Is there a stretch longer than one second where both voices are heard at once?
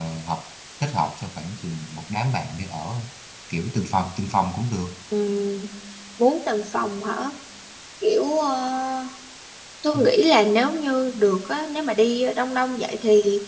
No

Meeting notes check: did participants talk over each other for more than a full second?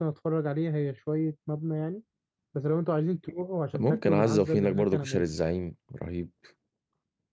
Yes, from 3.7 s

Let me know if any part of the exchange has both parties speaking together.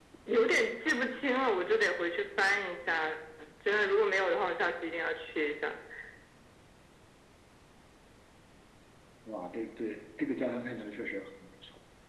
No

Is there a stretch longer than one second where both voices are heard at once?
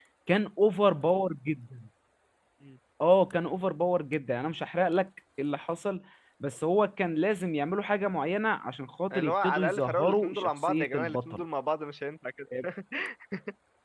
Yes, from 9.1 s

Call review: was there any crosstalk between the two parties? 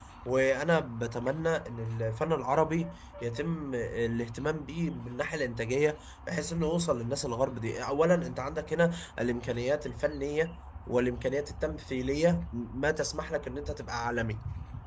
No

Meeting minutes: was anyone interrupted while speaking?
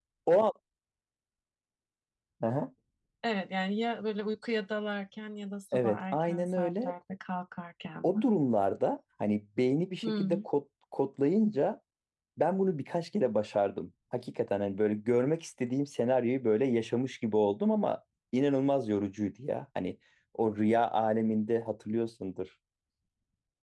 Yes, from 5.7 s

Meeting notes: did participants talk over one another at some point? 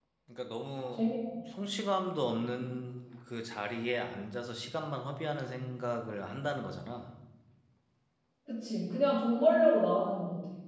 No

